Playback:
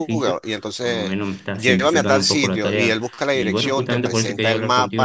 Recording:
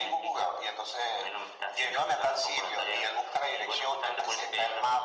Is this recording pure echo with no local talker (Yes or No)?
Yes